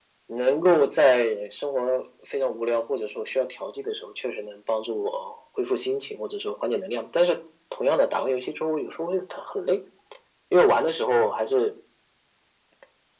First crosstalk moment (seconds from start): none

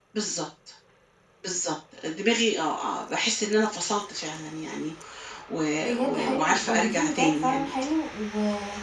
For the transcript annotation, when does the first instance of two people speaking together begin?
6 s

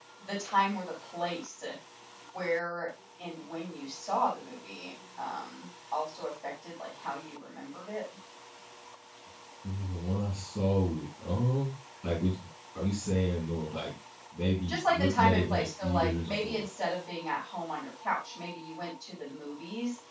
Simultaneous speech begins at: 15 s

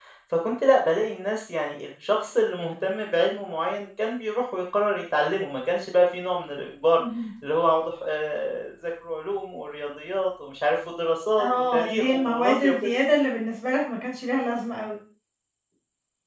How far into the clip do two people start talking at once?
11 s

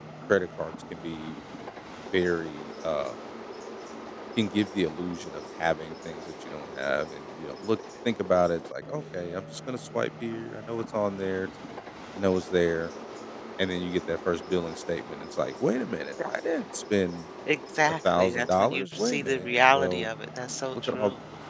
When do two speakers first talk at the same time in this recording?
18 s

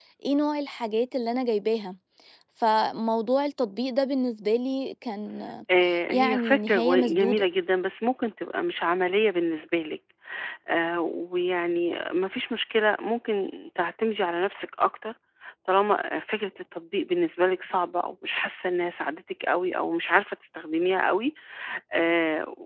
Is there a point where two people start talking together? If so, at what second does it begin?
6 s

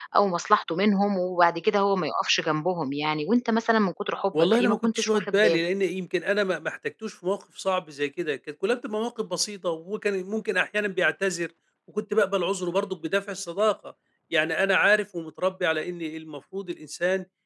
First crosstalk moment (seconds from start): 4 s

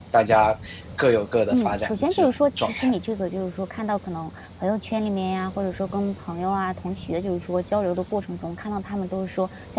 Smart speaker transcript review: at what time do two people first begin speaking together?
2 s

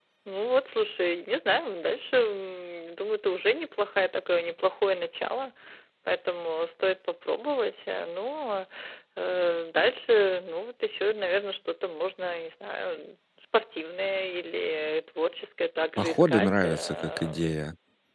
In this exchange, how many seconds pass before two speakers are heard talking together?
16 s

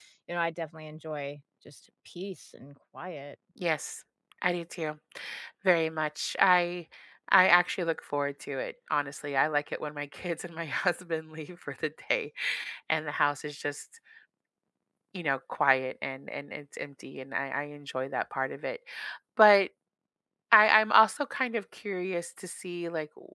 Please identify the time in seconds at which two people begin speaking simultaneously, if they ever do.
none

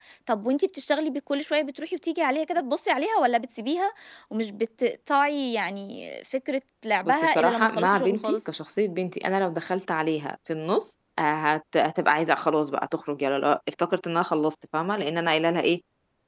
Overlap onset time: 7 s

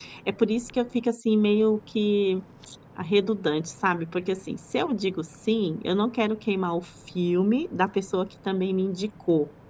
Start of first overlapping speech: none

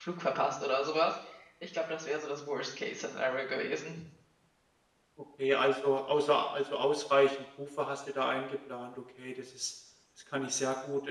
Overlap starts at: none

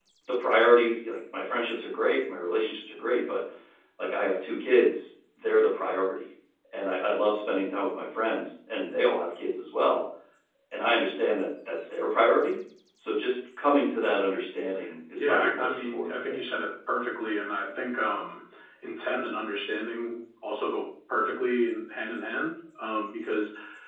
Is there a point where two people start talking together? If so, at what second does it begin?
15 s

